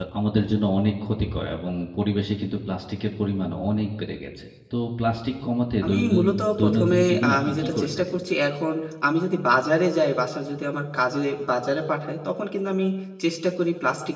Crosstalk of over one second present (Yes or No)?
Yes